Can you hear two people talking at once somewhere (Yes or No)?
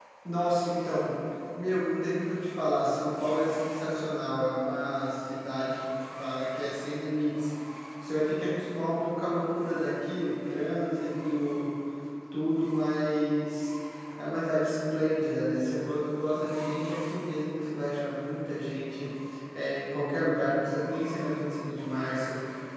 No